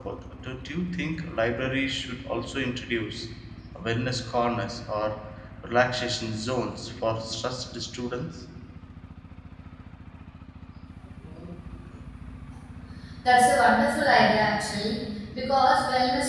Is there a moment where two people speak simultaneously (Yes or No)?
No